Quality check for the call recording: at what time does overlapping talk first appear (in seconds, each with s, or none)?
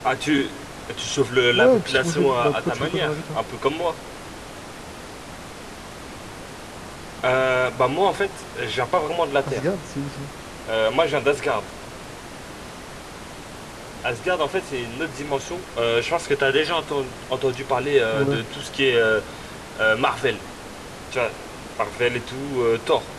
1.5 s